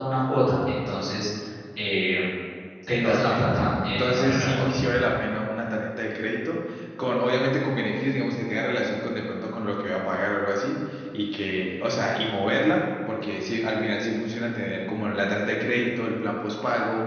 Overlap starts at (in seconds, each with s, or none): 3.0 s